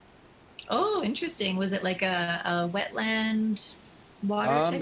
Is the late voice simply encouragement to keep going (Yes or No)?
No